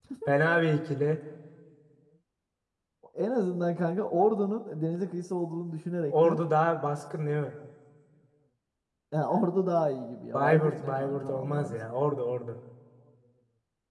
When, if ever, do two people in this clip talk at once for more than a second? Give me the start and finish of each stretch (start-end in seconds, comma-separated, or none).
10.3-11.8